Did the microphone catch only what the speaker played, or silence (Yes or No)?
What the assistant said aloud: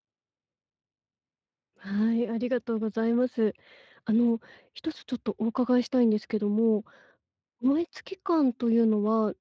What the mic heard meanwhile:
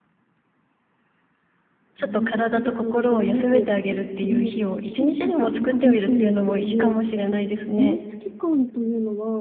No